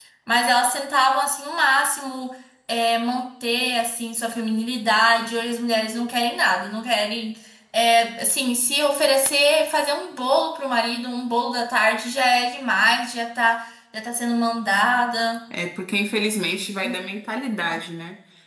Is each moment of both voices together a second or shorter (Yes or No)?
Yes